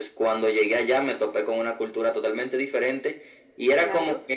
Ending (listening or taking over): listening